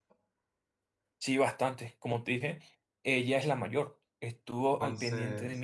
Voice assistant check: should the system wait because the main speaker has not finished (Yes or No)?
Yes